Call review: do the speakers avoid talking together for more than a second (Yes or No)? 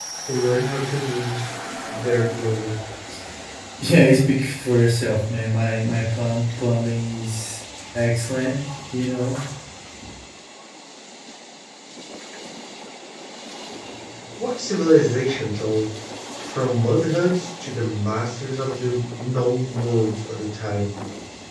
Yes